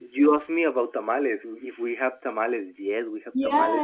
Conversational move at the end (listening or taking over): taking over